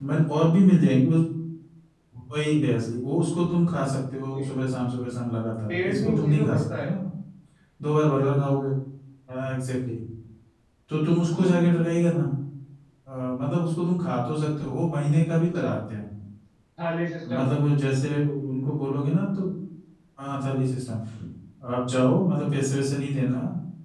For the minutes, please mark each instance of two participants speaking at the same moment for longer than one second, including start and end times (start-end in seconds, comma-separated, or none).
5.7-6.9